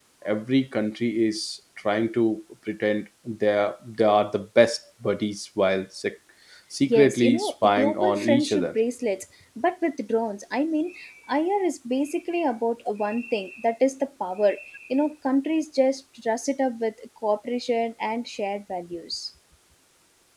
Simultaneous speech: Yes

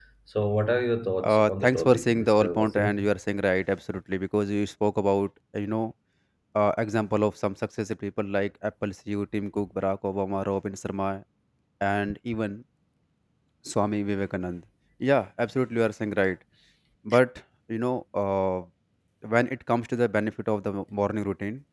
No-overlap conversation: No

